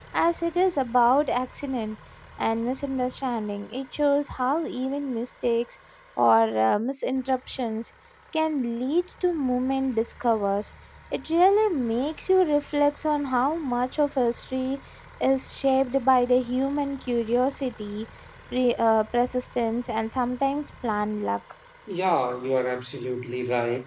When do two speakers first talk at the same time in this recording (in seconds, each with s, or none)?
none